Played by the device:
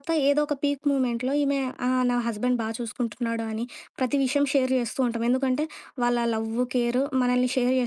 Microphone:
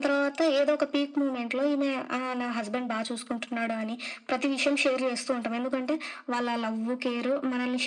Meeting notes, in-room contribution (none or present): none